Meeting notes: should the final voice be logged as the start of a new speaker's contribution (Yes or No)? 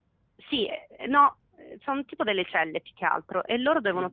No